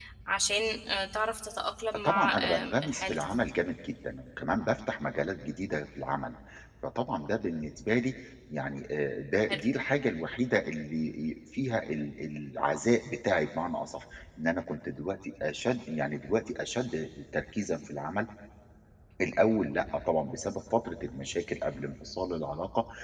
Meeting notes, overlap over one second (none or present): present